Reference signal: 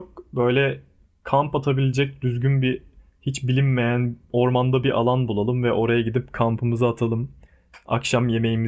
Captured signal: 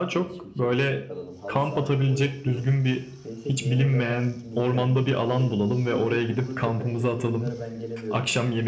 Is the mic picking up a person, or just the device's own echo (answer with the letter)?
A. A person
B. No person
A